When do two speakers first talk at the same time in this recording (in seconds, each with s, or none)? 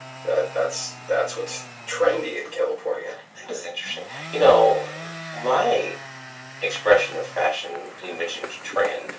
none